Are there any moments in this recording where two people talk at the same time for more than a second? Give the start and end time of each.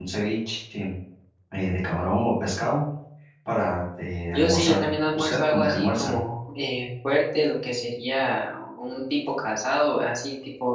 4.3-6.1

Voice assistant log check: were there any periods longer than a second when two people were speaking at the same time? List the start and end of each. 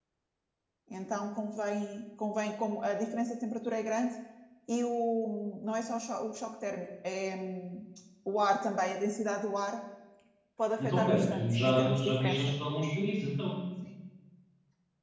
10.8-12.5

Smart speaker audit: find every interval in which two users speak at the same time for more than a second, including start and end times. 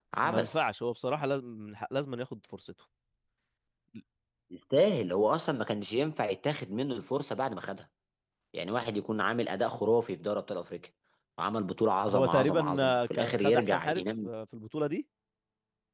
12.1-14.3

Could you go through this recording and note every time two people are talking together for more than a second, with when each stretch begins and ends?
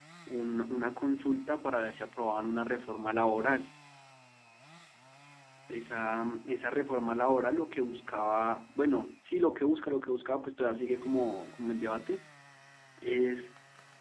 none

